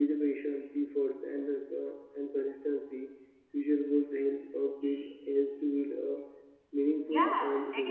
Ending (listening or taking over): taking over